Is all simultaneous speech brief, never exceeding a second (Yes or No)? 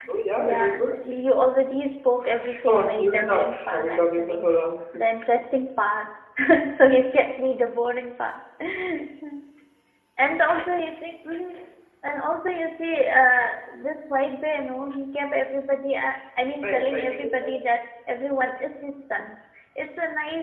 No